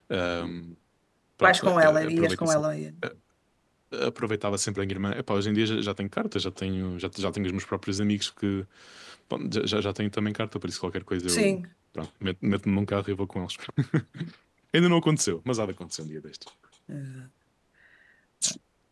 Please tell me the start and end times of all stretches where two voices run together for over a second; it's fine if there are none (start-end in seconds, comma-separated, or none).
1.4-2.6